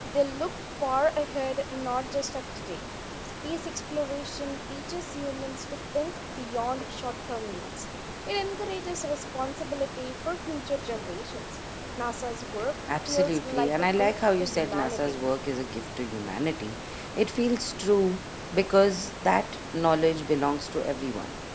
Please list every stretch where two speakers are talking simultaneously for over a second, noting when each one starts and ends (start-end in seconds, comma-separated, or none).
13.1-15.2